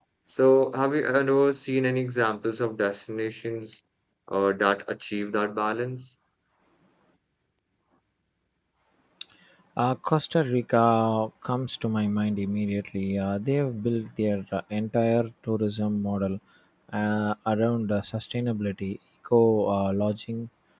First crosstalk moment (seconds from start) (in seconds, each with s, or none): none